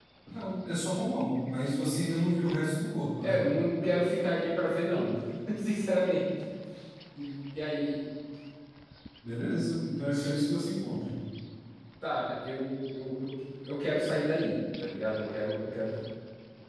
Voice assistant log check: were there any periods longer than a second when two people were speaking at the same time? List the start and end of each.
none

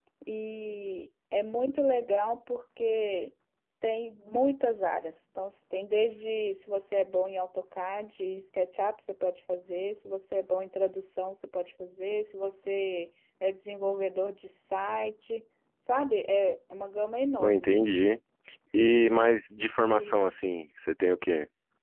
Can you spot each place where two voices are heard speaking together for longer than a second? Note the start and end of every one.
none

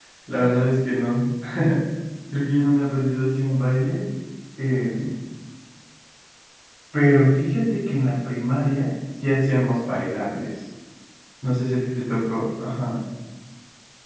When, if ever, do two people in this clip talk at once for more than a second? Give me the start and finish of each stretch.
none

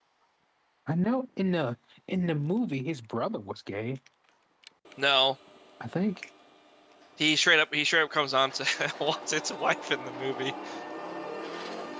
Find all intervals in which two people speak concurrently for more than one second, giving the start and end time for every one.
none

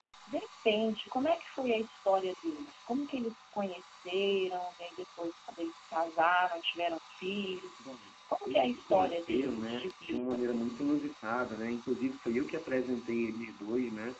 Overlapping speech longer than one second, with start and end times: 8.5-10.2

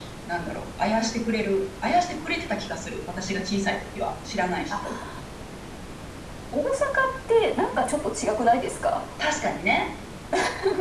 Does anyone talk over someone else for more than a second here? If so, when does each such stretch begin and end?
none

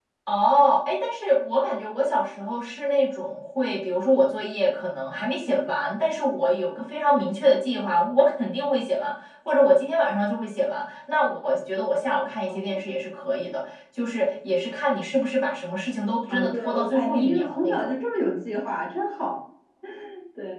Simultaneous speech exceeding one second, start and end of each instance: 16.3-17.9

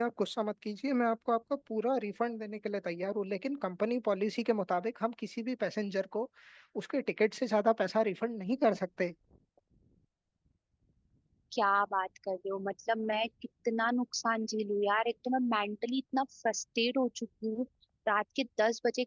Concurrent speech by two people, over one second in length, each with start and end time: none

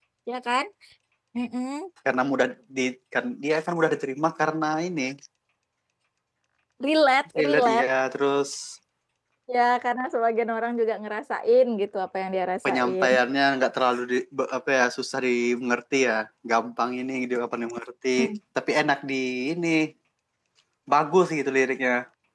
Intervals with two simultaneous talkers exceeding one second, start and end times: none

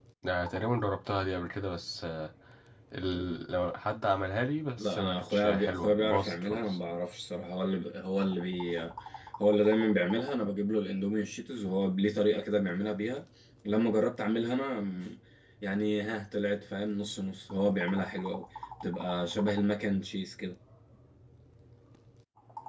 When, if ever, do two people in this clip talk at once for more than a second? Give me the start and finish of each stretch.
4.8-6.8

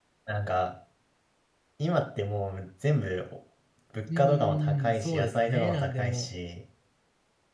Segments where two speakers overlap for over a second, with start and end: 4.2-6.3

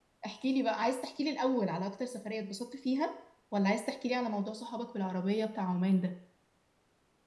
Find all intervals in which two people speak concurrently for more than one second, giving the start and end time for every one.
none

